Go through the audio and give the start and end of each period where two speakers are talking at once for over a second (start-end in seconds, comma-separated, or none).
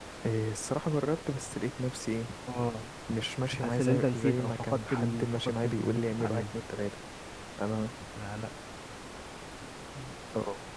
3.6-6.6